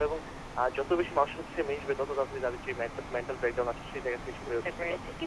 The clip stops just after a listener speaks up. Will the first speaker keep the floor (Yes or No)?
No